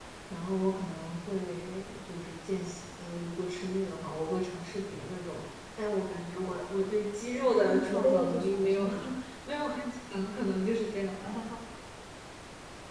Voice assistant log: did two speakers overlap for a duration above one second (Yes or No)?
Yes